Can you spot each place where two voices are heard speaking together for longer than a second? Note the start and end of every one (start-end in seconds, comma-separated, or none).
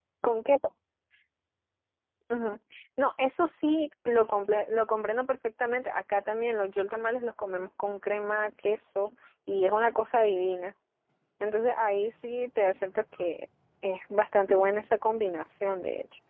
none